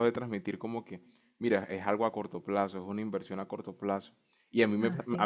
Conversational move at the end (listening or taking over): listening